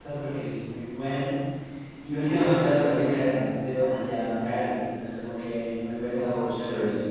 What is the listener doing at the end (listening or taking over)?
taking over